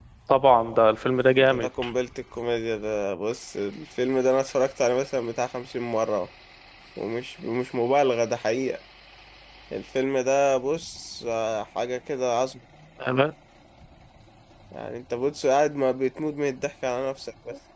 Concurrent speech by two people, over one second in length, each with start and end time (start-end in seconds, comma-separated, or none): none